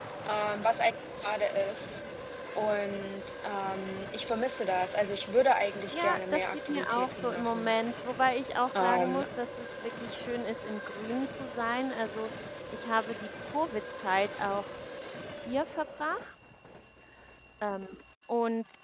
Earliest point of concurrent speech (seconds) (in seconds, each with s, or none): 5.9 s